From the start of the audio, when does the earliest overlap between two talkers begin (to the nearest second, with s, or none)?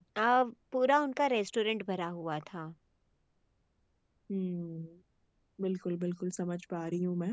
none